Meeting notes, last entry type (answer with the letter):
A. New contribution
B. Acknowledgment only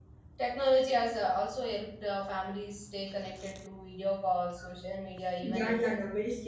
A